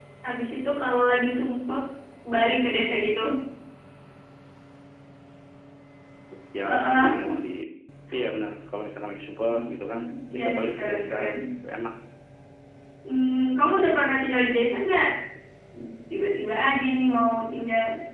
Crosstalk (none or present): present